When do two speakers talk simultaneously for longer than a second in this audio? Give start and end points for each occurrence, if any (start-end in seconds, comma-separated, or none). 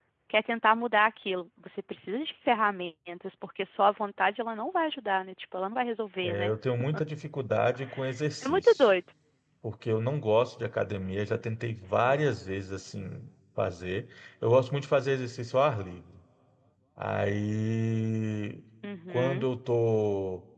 none